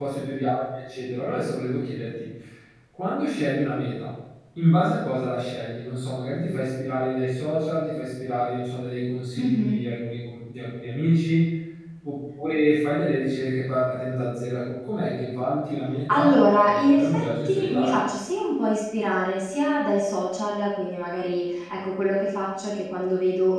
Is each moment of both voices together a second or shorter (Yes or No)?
No